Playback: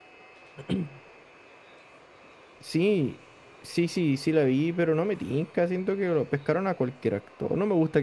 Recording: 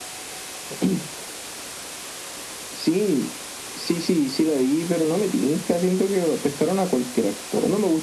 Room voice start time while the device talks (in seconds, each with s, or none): none